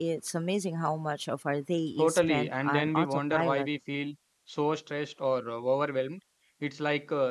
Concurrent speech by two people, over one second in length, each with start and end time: 2.0-3.7

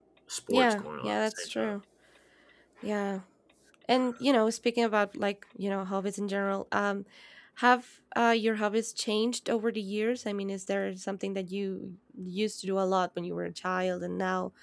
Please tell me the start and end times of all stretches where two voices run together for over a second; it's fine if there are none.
0.5-1.7

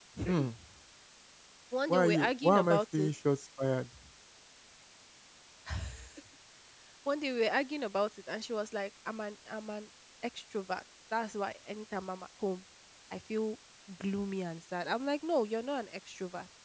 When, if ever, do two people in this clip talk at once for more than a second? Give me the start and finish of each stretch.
1.9-3.1

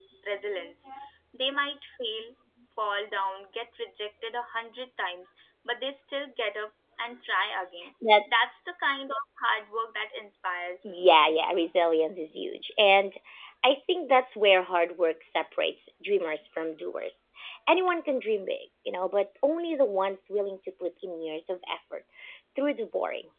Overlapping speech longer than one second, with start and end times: none

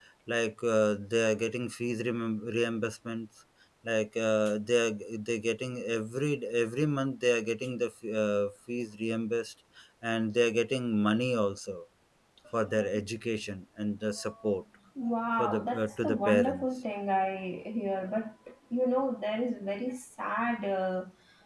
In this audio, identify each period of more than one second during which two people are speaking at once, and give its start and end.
15.4-16.7

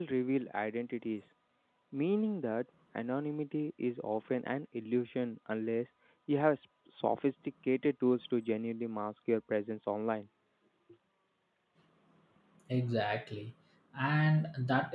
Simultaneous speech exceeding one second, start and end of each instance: none

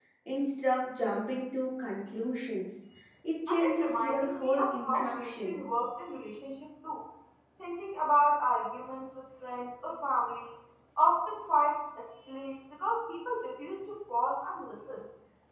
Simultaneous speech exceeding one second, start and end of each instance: 3.5-5.6

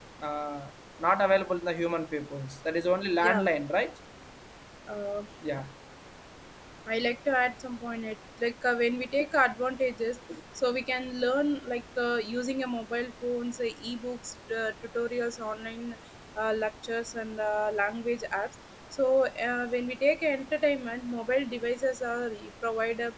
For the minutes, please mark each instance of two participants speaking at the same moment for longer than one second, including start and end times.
none

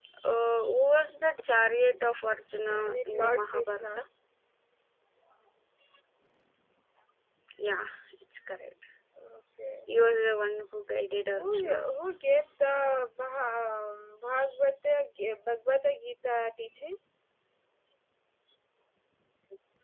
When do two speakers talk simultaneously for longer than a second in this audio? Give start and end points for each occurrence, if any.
2.6-4.0

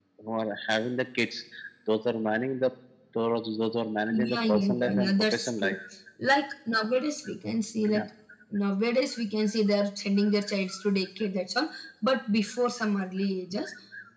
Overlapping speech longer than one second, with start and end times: 4.1-5.8

